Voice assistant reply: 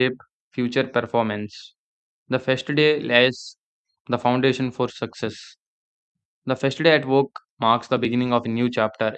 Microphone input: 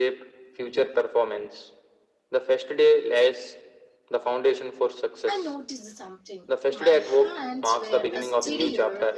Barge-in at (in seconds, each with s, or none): 5.3 s